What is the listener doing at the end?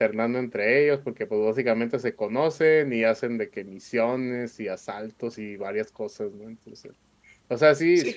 listening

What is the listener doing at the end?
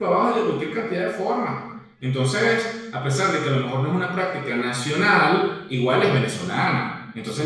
listening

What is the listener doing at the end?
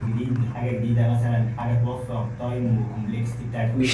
taking over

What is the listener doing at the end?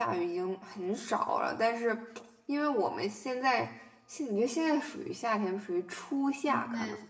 taking over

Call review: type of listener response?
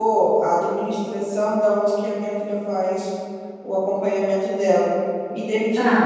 listening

